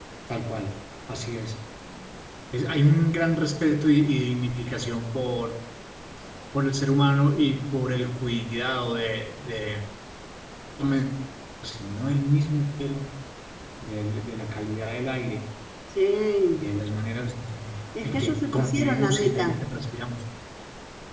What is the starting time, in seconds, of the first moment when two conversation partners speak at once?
18 s

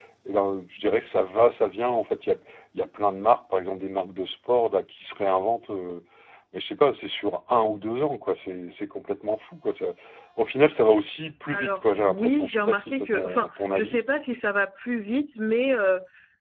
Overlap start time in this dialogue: 12 s

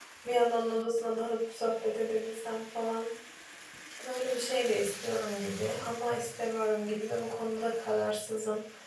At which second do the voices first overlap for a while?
none

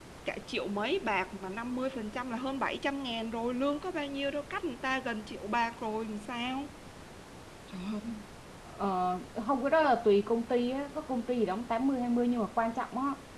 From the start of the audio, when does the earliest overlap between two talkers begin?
none

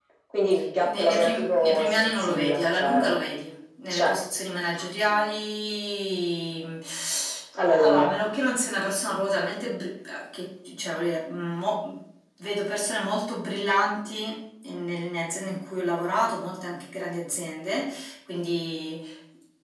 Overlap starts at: 1 s

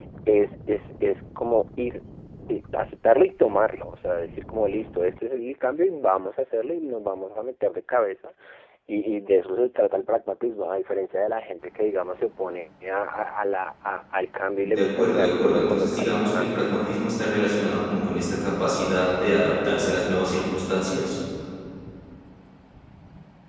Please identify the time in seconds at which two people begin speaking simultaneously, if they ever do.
15 s

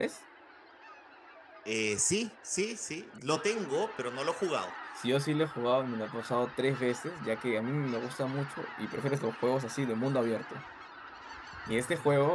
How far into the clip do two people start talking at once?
none

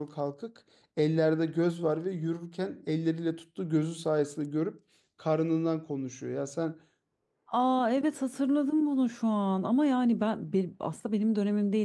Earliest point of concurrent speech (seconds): none

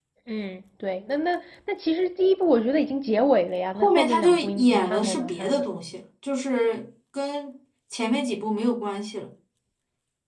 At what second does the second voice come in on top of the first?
4 s

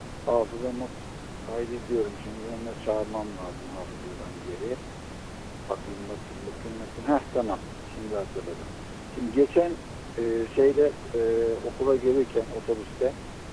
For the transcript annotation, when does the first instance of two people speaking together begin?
none

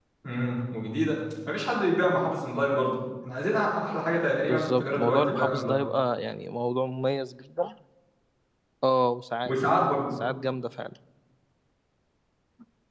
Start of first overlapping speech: 4 s

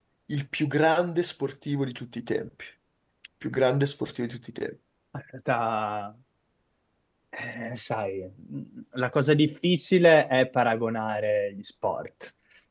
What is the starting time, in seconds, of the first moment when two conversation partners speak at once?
none

